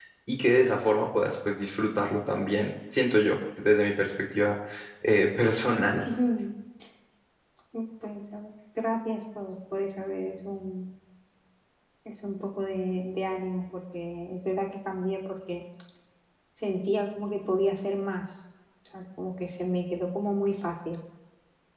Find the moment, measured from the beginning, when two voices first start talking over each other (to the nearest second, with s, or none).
none